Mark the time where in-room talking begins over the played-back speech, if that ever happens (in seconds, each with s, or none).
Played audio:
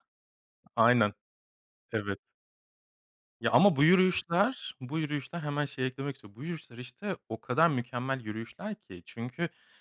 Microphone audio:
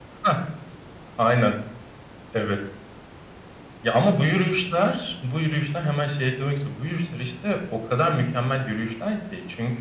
none